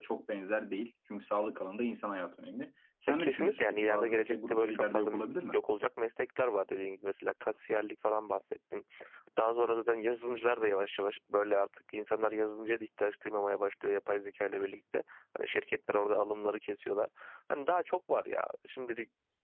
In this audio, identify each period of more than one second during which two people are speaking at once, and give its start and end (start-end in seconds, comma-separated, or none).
3.1-5.1